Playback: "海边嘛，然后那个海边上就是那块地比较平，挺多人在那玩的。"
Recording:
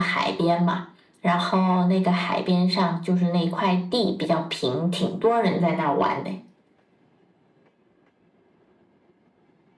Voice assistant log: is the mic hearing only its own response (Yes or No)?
Yes